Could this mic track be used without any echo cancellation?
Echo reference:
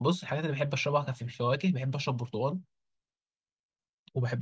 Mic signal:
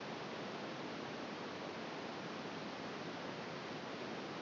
Yes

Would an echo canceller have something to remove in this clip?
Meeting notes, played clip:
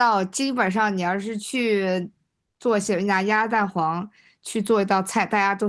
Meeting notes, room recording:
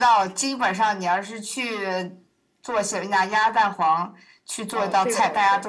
Yes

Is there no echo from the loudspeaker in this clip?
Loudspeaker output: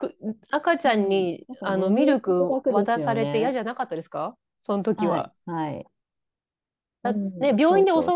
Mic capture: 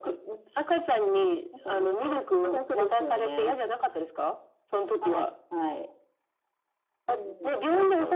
No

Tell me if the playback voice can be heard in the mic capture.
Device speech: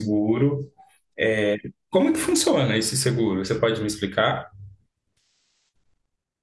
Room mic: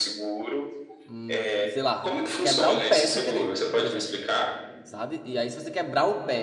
Yes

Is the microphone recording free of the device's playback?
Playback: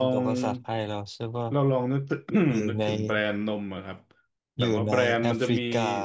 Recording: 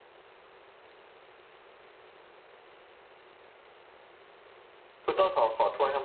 Yes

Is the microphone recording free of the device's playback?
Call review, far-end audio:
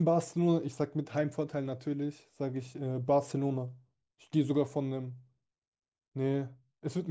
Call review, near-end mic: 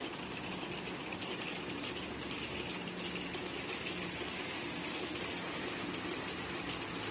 Yes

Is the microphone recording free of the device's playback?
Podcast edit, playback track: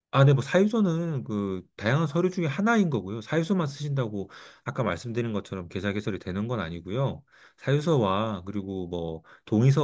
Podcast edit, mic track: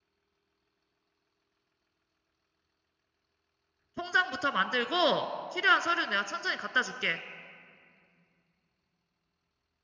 Yes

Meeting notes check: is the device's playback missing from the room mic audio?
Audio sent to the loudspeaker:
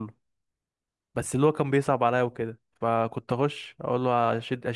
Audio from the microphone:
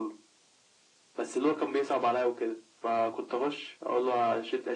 No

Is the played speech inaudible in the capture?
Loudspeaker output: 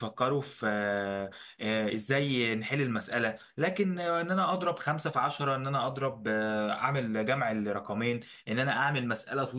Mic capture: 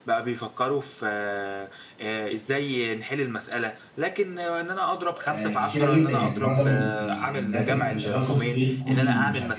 No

